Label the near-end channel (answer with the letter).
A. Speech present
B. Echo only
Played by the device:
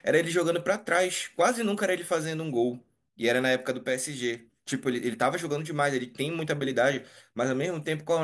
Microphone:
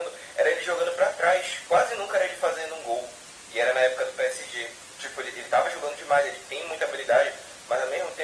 B